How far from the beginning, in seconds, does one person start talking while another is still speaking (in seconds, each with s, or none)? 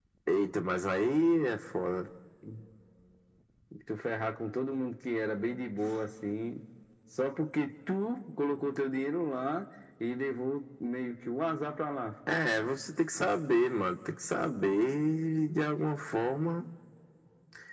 none